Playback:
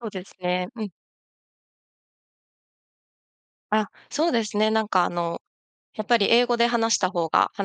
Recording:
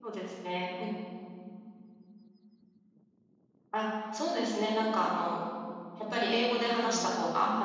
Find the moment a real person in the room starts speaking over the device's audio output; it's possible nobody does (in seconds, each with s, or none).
6.1 s